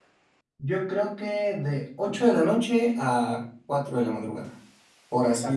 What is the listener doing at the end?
taking over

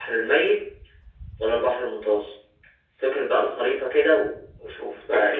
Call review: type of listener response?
taking over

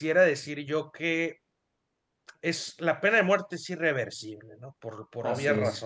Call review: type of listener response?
listening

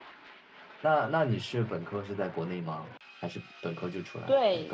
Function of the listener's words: taking over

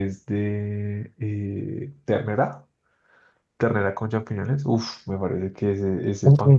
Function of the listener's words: listening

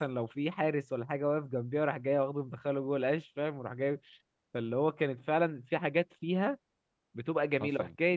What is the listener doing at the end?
listening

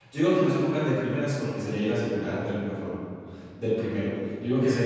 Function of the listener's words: listening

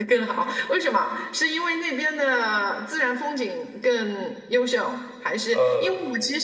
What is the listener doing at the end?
listening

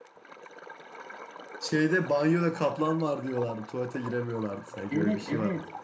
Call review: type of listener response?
taking over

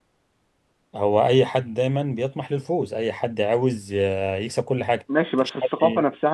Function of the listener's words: taking over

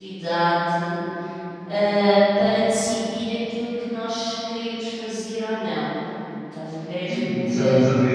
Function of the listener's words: taking over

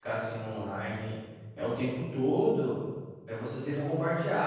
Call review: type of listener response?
listening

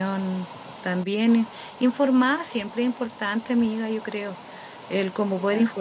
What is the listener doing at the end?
listening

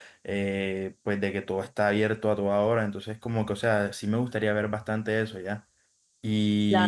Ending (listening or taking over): listening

